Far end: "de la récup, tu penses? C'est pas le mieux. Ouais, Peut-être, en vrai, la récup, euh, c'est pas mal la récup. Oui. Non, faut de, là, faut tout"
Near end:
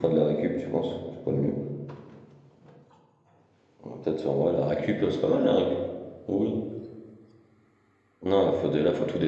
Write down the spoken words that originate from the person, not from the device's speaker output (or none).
none